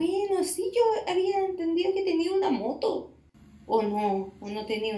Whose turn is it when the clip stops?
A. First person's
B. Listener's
B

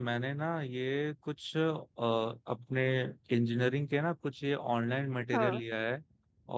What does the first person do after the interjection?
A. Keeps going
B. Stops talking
A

